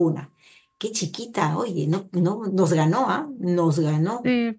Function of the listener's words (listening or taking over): taking over